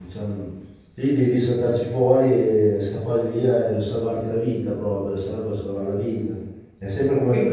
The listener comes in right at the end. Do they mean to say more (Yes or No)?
No